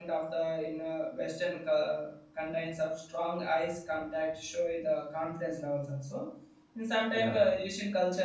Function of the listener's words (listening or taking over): listening